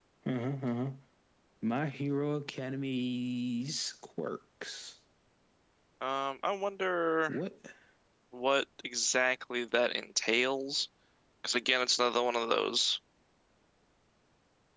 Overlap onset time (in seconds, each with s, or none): none